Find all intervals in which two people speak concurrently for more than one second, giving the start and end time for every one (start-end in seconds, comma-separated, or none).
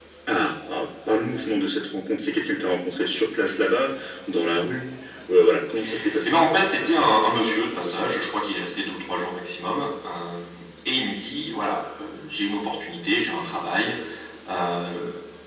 none